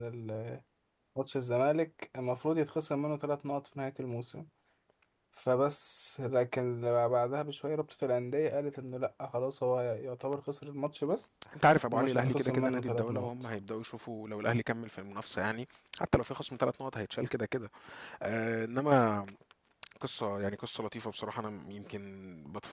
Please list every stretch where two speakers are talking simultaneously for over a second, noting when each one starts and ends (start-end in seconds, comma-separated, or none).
11.9-13.3